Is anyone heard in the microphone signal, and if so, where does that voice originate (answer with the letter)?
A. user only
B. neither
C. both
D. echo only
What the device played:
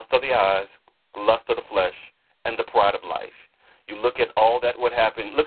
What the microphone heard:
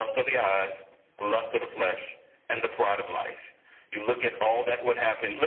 D